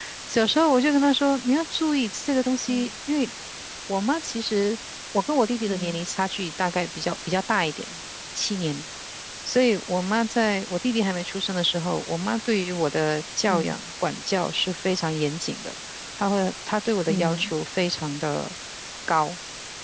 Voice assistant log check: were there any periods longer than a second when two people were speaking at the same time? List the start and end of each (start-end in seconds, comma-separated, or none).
none